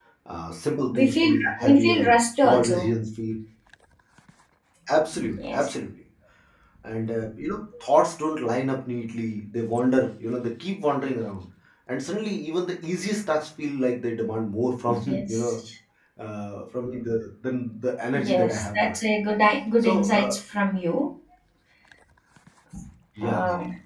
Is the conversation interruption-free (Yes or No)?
No